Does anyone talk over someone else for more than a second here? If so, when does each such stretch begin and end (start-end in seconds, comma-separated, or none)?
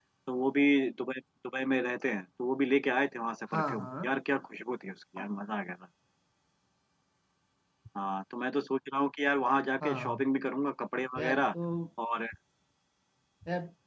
none